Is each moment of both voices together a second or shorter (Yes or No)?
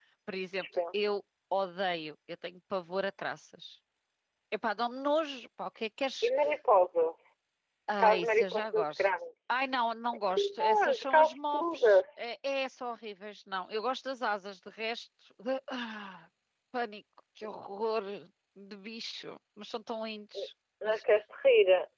No